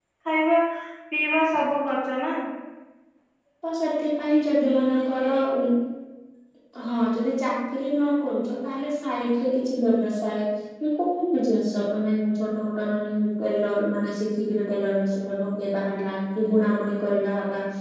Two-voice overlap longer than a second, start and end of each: none

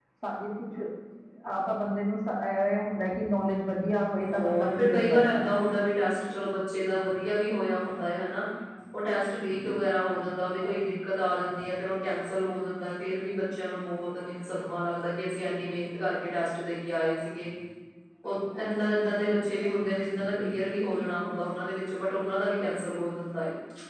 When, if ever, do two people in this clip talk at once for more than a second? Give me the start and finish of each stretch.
4.3-5.6

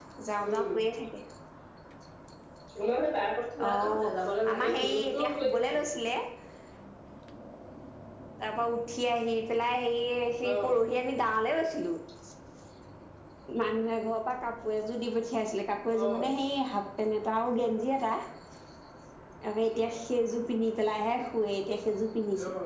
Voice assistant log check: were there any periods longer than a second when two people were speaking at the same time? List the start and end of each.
4.5-5.8

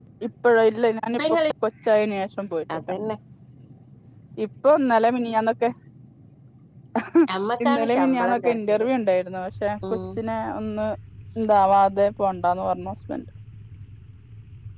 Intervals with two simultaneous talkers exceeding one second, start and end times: 7.6-8.9

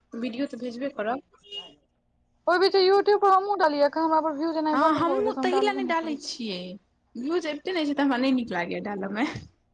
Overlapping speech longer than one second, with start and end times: 4.7-6.2

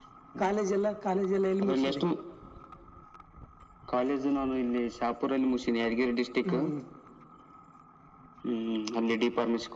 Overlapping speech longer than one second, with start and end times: none

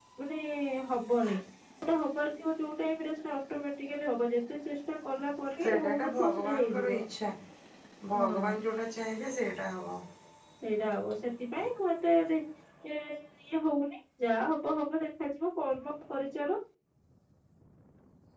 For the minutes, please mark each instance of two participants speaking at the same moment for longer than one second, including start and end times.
5.6-6.9

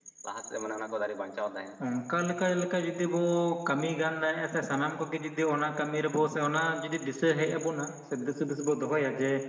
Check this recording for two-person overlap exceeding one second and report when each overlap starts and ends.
none

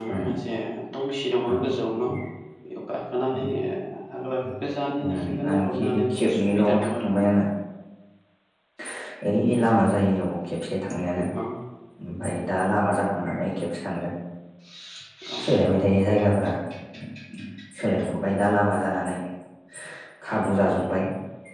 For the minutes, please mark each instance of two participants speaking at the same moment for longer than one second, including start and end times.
5.2-7.1

